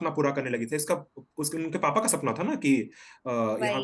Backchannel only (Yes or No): Yes